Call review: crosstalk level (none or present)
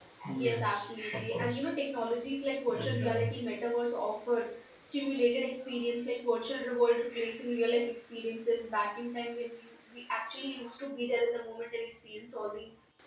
present